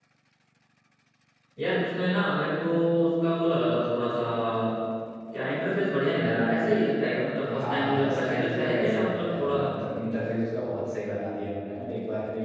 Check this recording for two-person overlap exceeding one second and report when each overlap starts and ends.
7.6-9.7

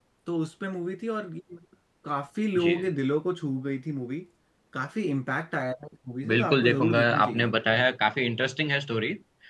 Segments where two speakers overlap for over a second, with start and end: 6.3-7.5

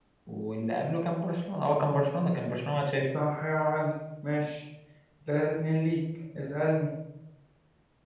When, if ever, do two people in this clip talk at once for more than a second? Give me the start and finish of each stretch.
none

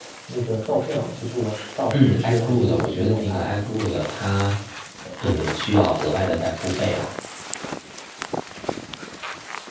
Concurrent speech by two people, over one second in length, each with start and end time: 1.9-3.5

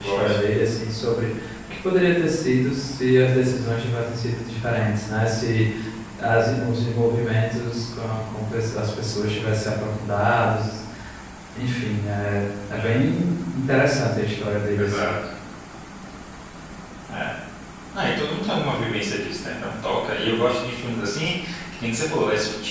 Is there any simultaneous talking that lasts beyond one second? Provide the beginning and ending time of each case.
none

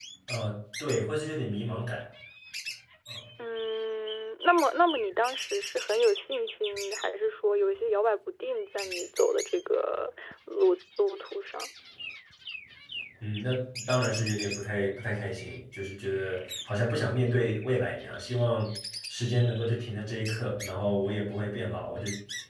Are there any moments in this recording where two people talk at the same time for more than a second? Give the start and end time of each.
none

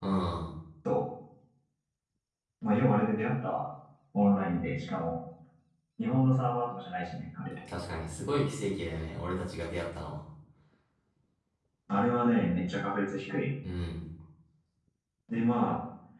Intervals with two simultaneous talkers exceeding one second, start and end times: none

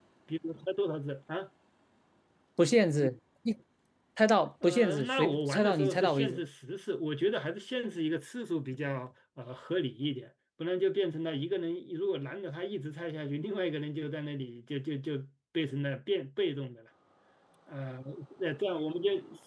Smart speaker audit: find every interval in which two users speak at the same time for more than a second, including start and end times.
4.6-6.4

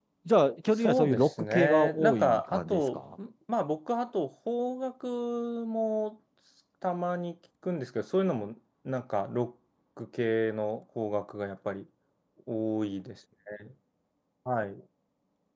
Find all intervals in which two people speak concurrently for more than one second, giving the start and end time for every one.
0.7-3.0

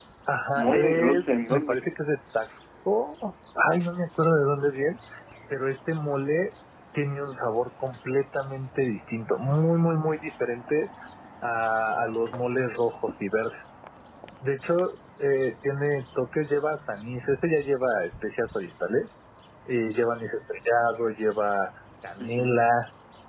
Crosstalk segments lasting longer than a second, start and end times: 0.5-1.8

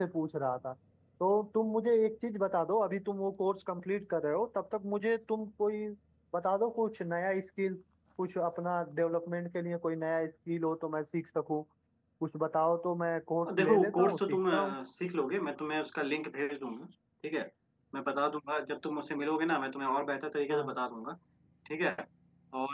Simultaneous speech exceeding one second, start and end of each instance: 13.5-14.8

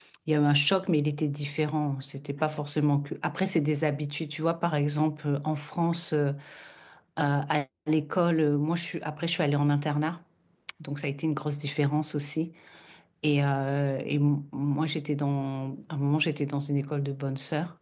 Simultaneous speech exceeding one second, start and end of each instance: none

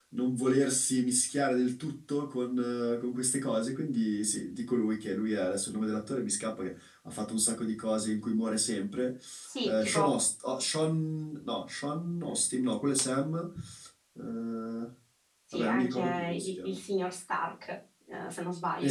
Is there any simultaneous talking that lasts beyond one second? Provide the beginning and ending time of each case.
15.5-16.8

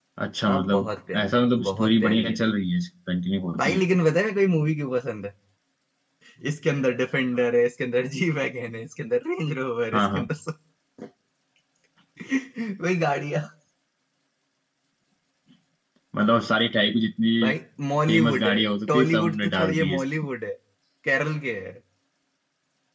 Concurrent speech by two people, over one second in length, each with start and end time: 0.5-2.4, 18.1-20.0

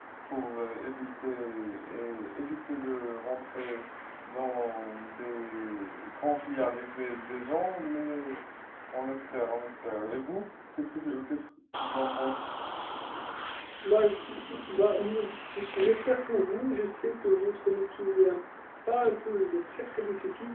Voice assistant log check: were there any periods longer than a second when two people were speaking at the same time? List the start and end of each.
none

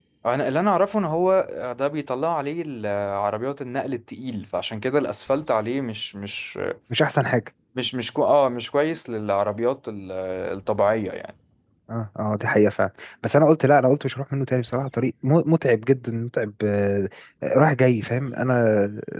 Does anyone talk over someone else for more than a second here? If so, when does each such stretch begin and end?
none

